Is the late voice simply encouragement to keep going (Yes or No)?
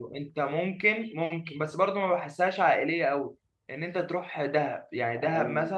Yes